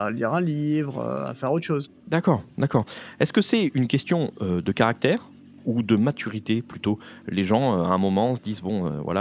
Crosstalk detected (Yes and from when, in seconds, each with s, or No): No